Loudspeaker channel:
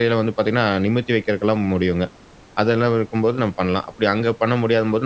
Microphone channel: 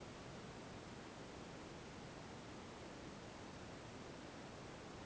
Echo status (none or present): none